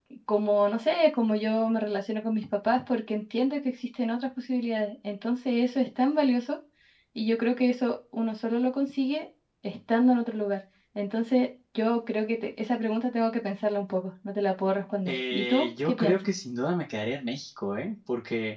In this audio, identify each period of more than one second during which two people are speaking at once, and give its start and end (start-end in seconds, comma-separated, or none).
15.1-16.3